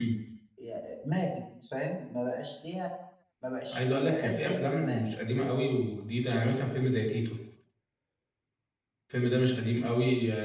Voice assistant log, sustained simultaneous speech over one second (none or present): present